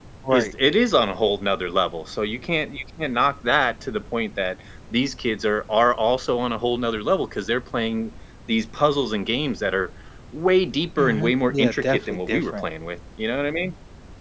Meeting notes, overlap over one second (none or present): present